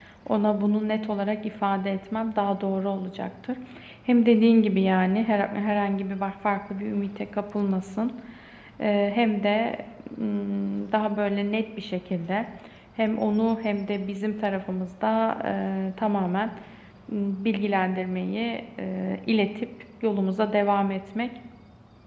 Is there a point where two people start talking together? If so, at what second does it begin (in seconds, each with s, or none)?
none